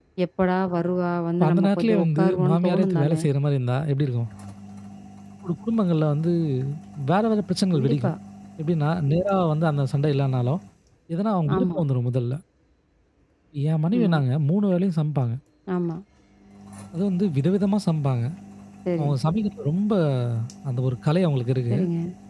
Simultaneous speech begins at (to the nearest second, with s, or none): 1 s